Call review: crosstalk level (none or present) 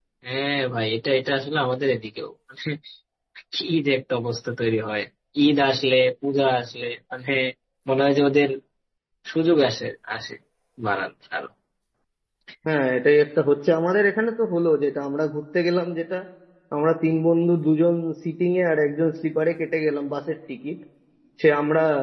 none